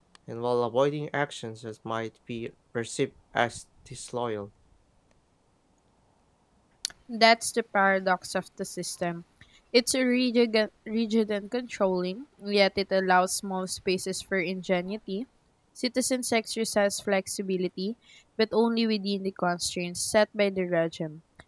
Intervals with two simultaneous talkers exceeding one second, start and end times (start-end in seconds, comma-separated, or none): none